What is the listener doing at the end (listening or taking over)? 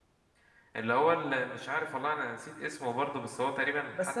taking over